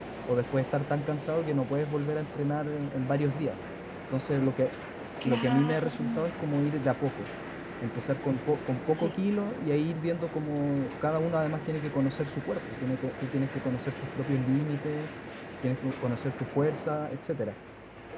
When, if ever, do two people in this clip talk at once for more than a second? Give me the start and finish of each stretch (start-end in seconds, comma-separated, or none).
5.2-6.5